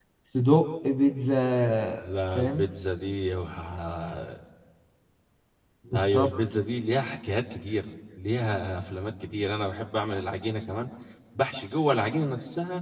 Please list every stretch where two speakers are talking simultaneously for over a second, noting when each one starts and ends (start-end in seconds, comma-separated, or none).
none